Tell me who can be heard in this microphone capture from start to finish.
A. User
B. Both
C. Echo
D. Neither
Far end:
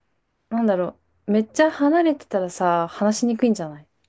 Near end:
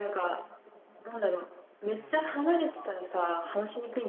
B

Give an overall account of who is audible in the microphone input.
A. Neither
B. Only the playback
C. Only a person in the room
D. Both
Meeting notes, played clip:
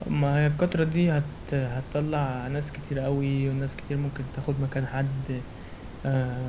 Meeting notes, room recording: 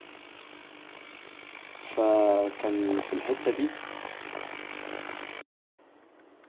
C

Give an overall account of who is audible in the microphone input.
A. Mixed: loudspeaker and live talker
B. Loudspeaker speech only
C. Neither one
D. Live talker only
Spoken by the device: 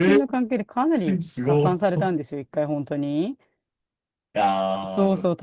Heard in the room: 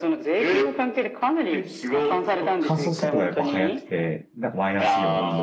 A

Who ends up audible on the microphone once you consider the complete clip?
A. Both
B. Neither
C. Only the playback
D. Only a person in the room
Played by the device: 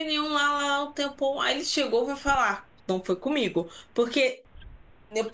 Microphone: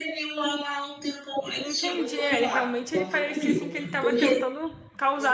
A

